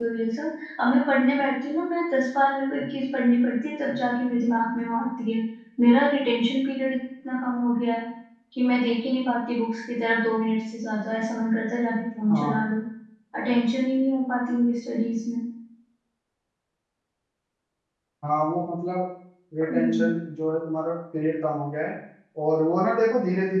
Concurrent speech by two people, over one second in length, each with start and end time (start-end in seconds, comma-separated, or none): none